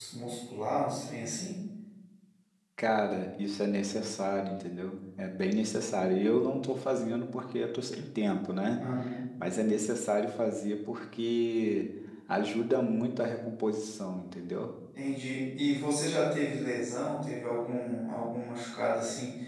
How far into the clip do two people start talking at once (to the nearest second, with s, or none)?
none